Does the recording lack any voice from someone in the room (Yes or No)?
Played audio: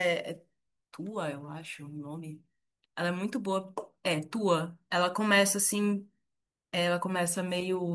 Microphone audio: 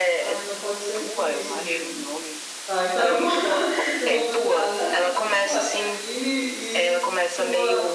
No